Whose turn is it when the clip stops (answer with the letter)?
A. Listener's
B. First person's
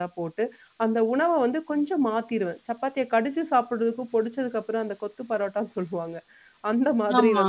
B